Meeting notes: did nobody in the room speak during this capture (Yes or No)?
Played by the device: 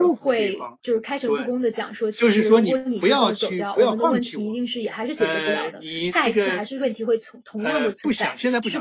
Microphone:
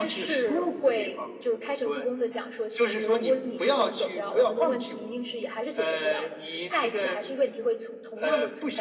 Yes